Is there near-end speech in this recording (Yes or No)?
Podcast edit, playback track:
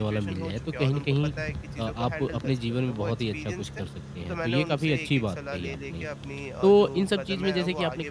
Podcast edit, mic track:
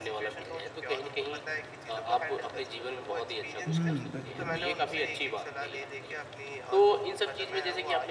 Yes